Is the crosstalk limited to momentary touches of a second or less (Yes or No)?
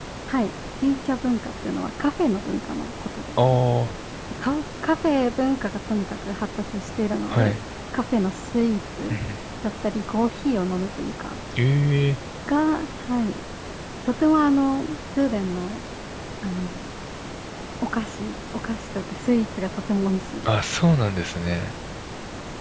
Yes